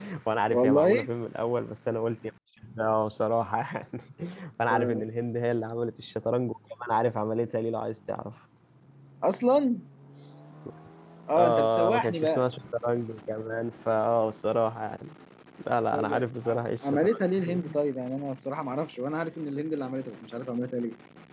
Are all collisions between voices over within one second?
No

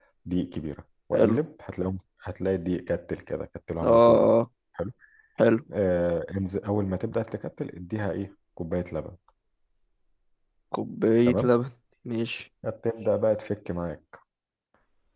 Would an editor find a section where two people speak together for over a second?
No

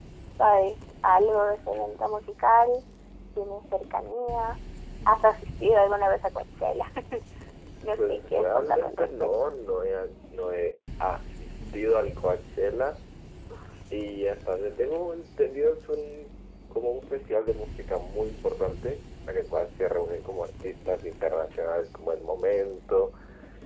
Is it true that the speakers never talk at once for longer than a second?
No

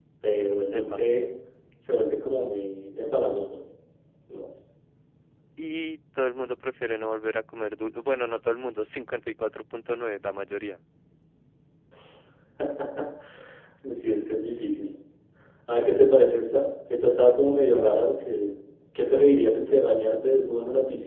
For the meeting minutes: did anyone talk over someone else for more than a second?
No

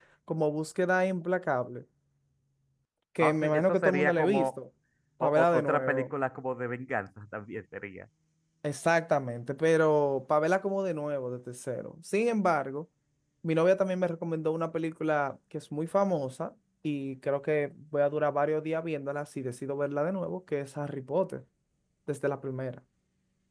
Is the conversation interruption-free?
No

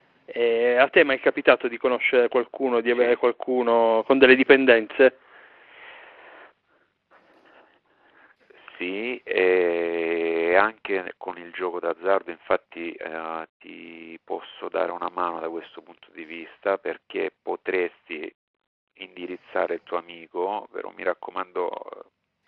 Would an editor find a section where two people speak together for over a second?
No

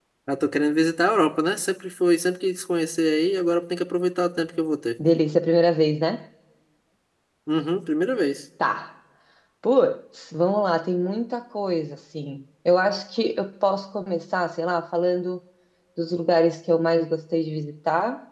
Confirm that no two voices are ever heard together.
Yes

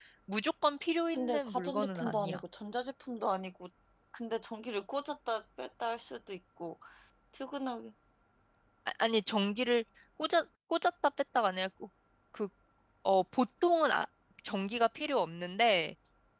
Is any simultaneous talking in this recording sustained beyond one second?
Yes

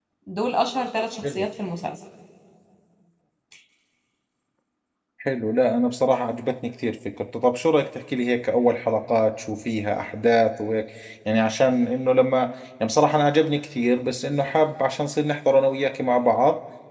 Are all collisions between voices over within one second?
Yes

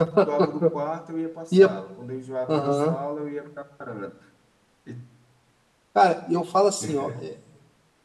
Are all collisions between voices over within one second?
Yes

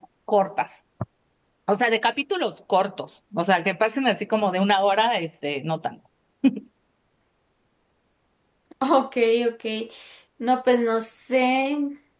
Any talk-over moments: No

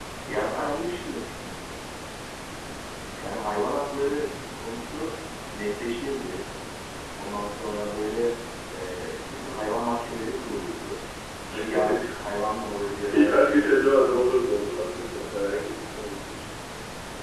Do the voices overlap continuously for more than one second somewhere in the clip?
Yes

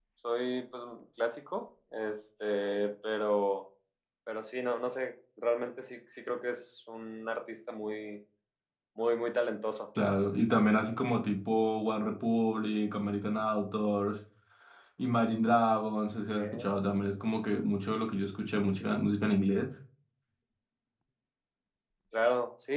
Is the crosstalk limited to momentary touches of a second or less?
Yes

